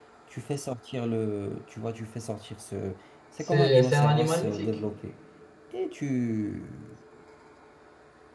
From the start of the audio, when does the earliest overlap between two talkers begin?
3 s

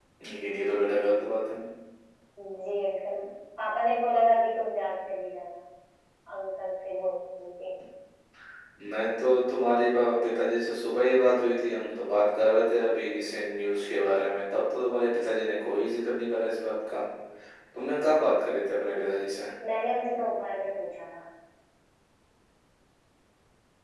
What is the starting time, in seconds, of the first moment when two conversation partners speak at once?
none

